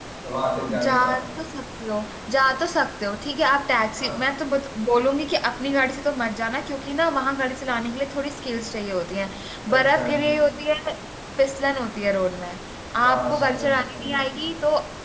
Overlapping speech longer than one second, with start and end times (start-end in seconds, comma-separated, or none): 13.0-14.3